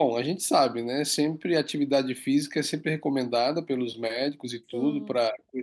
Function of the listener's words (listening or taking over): listening